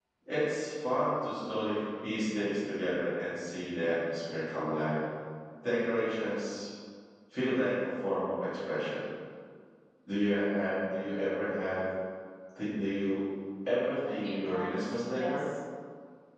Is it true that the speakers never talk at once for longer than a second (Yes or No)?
No